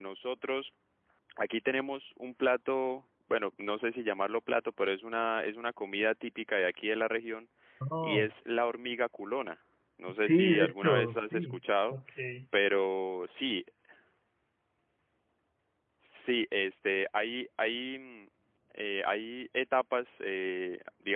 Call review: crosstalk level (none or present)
present